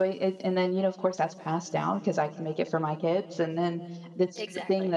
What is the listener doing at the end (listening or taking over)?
listening